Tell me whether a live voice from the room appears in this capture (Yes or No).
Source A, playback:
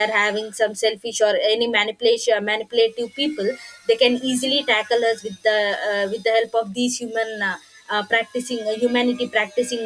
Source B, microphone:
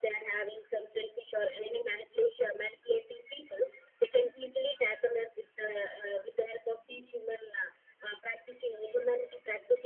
No